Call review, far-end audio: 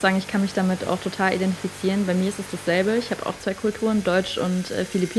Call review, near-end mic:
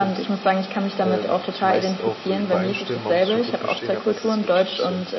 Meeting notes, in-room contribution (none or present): present